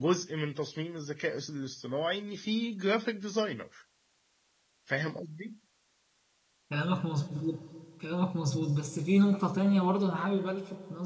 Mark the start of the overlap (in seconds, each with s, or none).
none